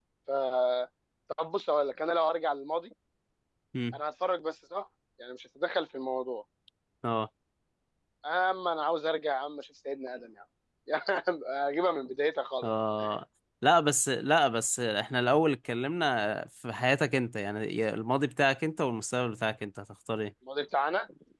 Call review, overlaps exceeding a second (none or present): none